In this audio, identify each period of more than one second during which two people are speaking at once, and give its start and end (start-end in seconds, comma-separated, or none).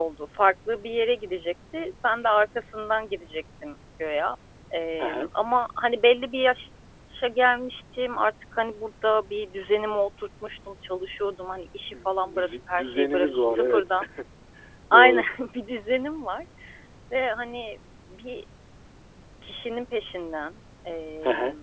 11.9-13.8